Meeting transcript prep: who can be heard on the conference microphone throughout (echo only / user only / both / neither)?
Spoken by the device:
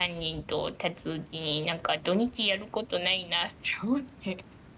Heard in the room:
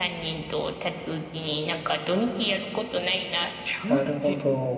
both